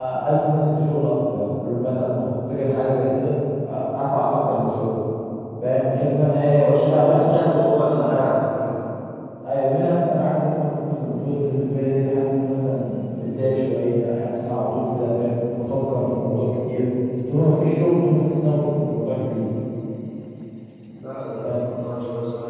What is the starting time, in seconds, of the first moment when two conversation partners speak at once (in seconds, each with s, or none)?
6.5 s